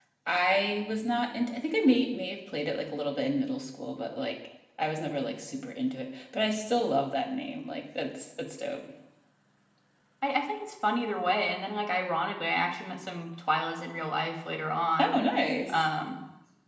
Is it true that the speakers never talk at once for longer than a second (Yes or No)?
Yes